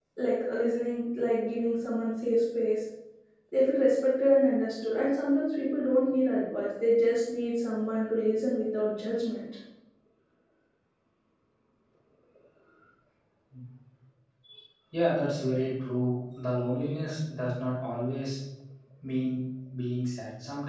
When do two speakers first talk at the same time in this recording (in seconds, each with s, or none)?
none